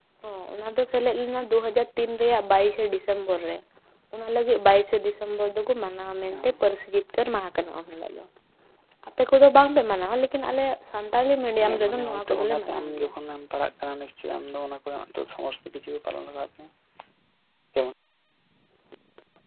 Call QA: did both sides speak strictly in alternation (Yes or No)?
No